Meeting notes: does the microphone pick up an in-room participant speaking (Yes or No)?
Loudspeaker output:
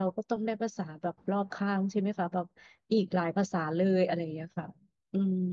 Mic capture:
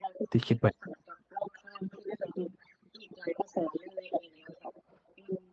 Yes